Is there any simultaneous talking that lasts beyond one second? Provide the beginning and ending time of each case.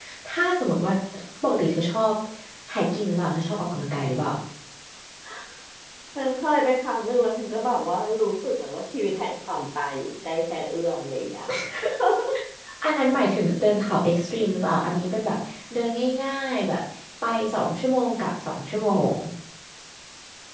none

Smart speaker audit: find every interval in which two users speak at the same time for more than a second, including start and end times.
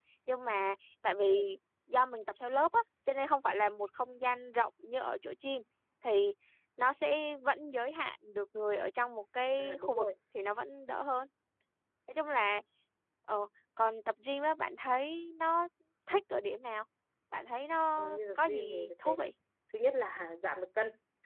18.0-19.3

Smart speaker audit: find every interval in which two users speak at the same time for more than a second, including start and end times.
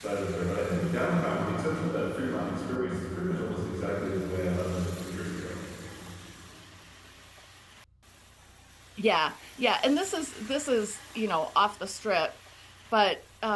none

